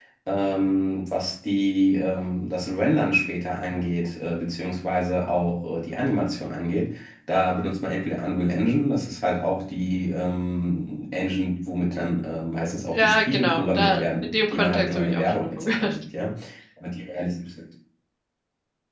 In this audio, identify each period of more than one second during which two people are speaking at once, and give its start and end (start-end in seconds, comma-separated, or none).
12.9-15.9